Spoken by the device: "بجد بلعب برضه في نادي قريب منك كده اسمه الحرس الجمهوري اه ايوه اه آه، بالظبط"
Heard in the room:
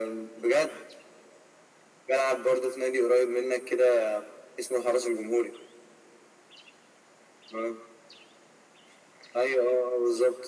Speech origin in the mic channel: echo only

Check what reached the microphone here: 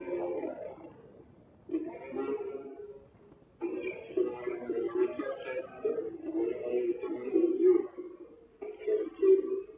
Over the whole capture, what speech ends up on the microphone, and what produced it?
echo only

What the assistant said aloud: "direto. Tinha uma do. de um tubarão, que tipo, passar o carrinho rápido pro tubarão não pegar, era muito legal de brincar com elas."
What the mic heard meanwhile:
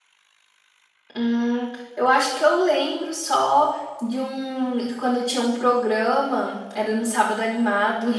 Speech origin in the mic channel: user only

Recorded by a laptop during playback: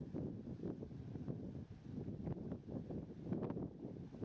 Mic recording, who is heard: neither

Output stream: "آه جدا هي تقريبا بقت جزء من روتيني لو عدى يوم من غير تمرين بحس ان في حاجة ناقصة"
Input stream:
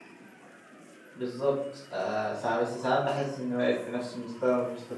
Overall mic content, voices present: user only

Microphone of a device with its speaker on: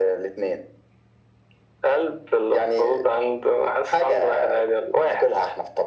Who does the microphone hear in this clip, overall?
echo only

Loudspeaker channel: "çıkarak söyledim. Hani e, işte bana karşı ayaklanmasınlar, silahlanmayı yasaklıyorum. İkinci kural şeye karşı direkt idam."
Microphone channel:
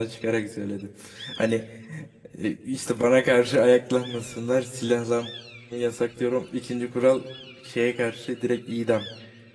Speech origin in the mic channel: echo only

